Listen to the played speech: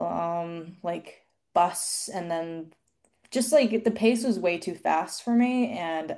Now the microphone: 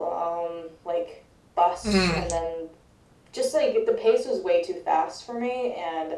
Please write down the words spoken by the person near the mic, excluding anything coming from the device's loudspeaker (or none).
Mm,